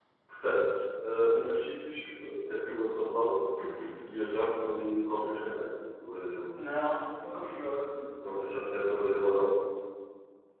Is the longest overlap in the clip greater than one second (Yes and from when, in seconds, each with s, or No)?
No